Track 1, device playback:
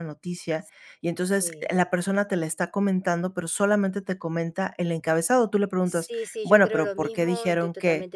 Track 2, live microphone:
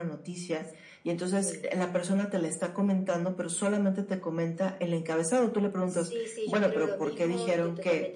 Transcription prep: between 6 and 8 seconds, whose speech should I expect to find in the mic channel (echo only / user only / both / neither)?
echo only